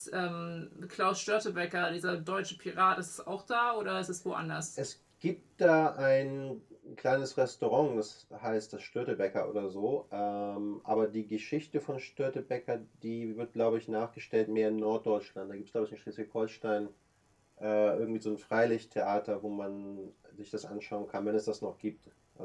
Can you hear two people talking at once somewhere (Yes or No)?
No